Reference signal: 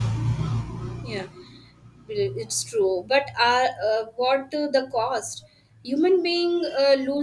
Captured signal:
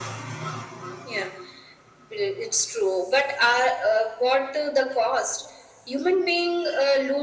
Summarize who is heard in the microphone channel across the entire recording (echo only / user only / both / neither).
echo only